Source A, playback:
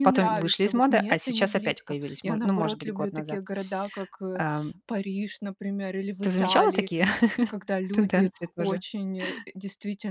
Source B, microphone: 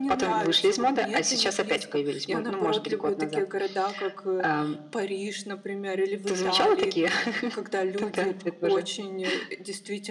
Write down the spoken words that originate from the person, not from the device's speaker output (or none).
none